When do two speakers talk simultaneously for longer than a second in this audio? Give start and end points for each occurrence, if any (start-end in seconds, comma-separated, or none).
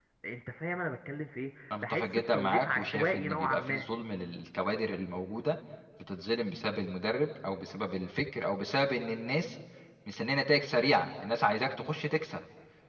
1.8-3.8